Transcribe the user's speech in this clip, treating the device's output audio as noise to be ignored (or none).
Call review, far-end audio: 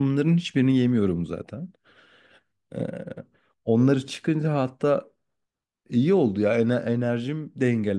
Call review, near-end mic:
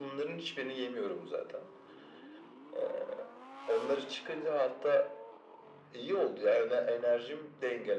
none